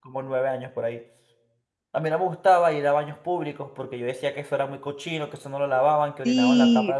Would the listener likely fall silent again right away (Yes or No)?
No